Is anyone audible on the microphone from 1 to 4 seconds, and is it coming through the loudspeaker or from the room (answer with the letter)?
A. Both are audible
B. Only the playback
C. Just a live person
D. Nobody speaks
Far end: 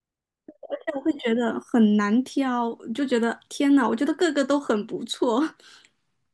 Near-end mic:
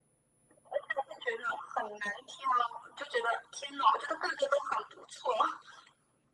B